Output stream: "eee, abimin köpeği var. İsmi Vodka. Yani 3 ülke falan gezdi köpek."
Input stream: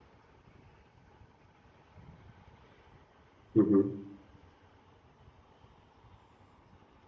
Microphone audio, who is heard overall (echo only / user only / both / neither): user only